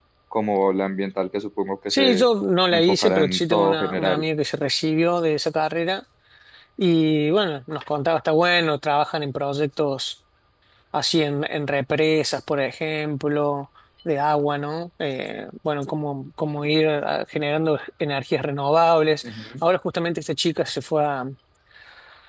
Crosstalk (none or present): present